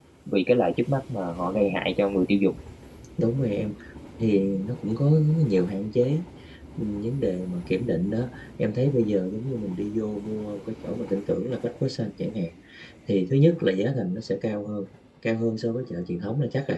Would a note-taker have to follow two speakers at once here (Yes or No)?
No